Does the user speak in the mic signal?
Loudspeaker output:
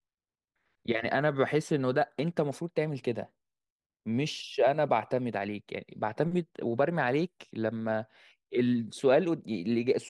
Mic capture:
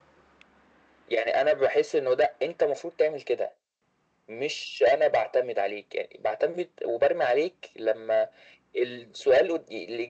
No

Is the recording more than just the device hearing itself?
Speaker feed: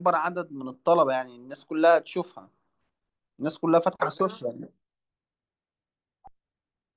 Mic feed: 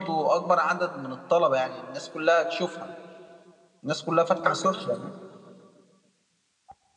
No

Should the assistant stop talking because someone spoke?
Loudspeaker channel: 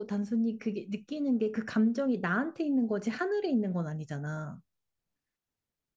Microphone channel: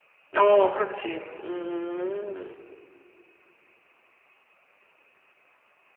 Yes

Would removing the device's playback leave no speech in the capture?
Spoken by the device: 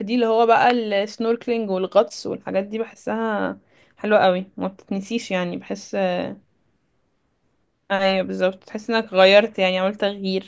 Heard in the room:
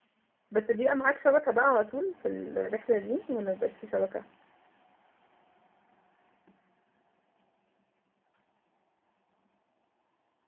No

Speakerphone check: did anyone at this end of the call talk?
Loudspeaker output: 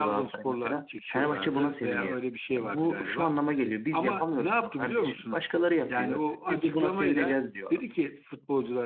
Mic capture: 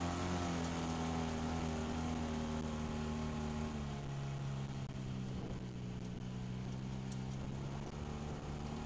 No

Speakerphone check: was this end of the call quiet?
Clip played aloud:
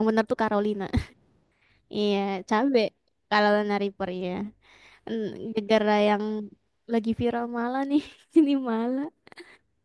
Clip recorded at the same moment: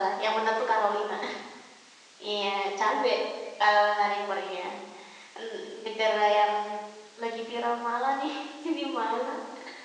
Yes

